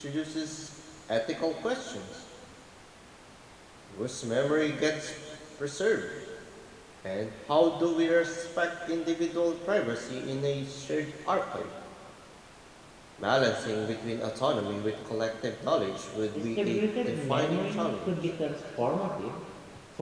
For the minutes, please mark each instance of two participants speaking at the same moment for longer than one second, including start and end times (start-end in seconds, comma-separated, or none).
16.3-18.3